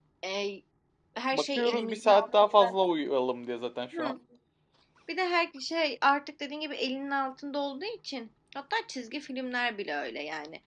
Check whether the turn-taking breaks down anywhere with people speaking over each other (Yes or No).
Yes